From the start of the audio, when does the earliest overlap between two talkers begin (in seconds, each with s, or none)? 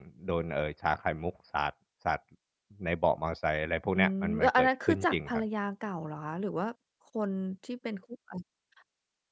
4.0 s